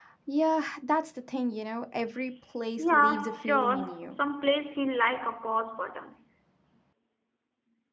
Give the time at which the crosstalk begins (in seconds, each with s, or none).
2.8 s